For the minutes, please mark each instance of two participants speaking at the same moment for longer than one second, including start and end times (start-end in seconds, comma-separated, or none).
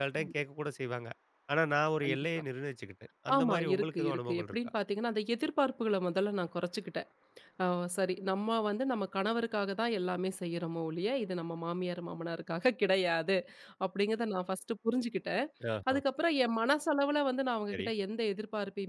3.3-4.6